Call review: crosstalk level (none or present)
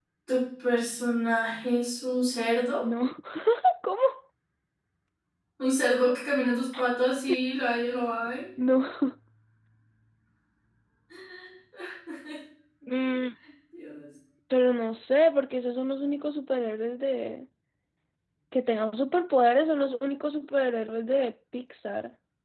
none